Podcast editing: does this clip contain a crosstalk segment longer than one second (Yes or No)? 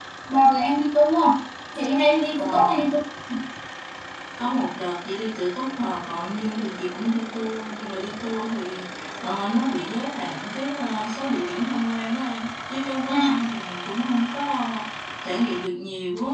No